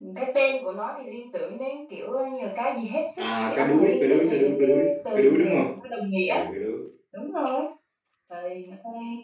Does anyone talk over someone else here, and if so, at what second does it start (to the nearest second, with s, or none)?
3 s